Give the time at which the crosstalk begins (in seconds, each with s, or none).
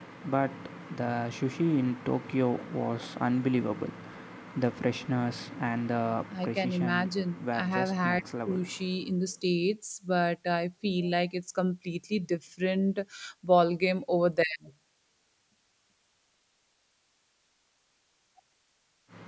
6.3 s